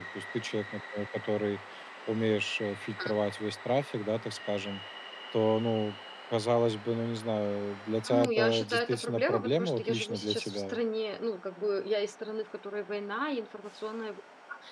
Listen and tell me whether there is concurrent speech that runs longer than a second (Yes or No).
Yes